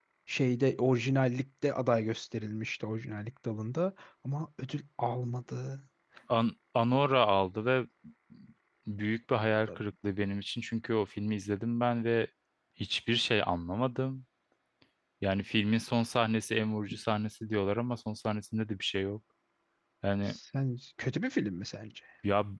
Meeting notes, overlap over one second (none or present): none